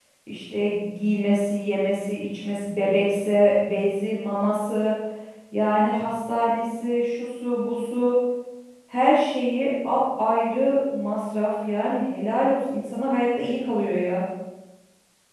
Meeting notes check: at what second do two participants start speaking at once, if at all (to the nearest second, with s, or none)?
none